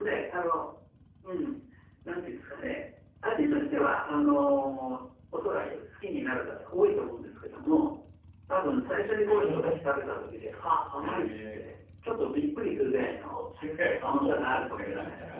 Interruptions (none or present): present